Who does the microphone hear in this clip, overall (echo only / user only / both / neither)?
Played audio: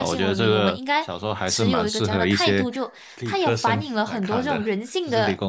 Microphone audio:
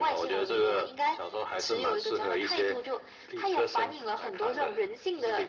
echo only